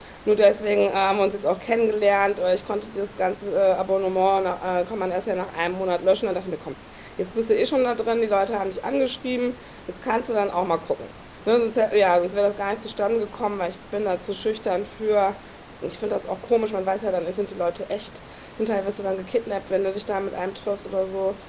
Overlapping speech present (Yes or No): No